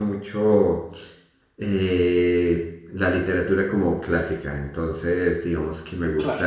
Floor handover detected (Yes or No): No